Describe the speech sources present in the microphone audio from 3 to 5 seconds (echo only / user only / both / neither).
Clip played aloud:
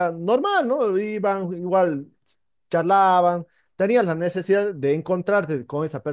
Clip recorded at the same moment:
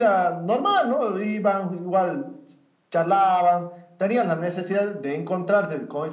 echo only